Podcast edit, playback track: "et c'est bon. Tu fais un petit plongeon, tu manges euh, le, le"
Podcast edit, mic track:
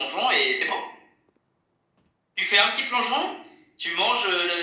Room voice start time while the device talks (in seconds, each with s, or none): none